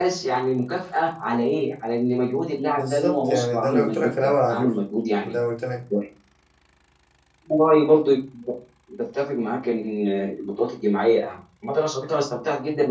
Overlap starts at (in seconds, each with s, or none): 2.8 s